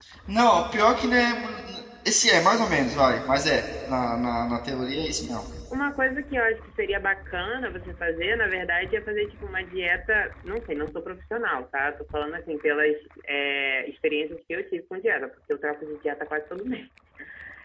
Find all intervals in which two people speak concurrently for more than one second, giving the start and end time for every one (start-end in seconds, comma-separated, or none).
none